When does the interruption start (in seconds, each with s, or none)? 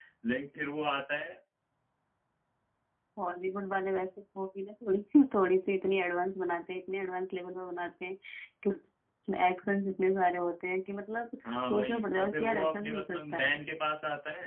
11.4 s